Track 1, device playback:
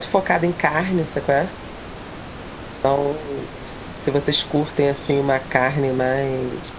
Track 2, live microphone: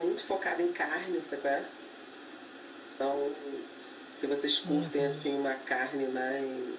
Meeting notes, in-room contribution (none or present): present